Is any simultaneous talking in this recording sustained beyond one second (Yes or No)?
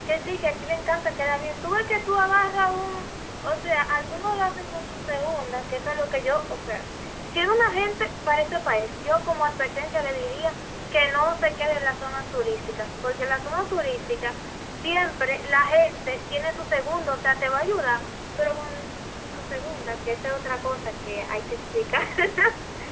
No